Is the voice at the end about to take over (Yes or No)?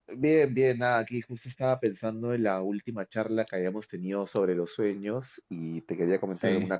No